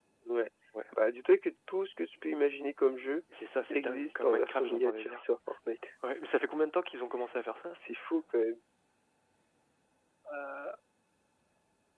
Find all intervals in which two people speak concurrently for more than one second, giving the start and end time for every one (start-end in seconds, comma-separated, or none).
3.7-5.2